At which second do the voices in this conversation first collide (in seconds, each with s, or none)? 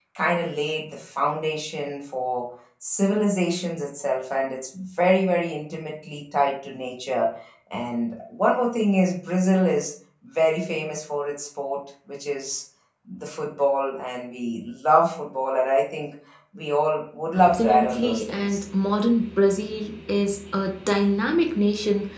17.4 s